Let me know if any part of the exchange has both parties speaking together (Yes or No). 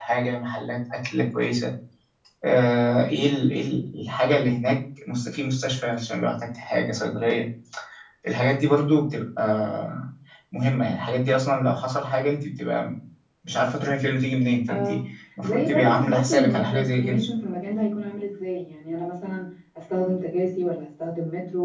Yes